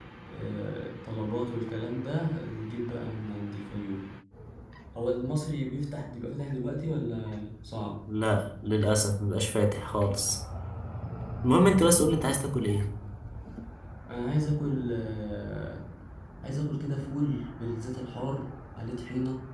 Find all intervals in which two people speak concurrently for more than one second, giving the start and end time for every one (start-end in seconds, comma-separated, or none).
none